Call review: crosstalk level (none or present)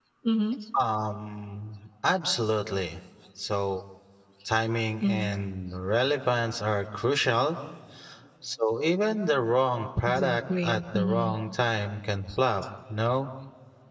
present